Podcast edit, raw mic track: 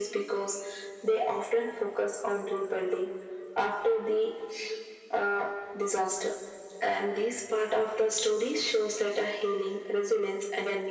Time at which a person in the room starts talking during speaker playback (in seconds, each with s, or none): none